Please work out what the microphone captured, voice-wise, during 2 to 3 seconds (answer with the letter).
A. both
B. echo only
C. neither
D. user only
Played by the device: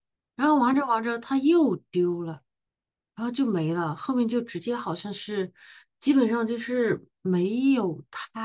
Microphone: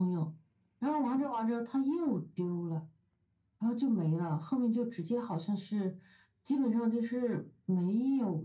B